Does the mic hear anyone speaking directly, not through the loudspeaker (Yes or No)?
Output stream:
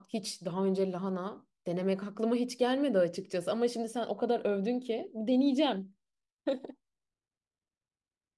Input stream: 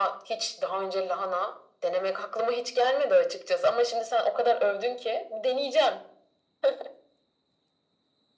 No